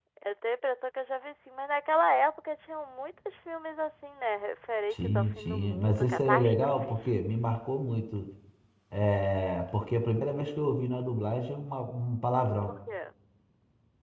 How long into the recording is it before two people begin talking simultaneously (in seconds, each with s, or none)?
4.9 s